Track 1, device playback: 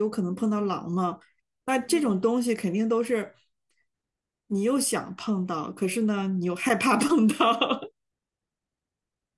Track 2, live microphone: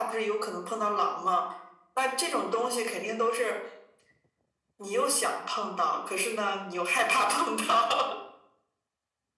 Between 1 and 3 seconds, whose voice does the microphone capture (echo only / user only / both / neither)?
echo only